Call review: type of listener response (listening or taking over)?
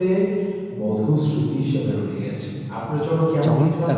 taking over